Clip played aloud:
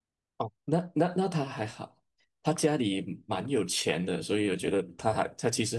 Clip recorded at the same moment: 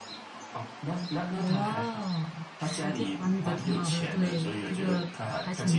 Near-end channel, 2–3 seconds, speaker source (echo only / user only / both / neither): both